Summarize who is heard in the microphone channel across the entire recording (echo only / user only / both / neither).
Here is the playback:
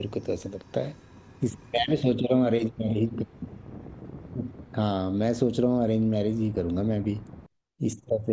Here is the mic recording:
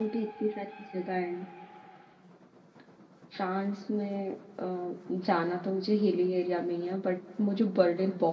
user only